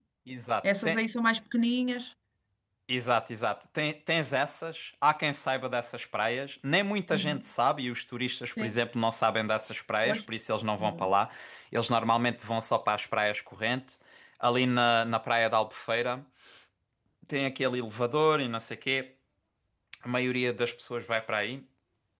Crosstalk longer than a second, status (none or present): none